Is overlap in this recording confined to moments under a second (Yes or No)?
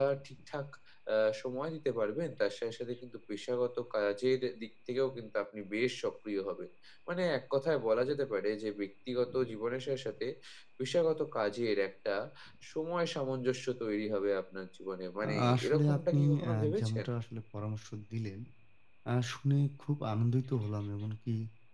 No